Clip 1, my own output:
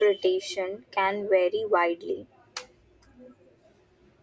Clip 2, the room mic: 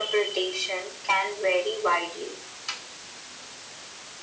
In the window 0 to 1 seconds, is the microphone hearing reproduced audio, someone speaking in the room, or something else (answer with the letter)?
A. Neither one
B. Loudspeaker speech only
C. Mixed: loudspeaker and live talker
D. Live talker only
B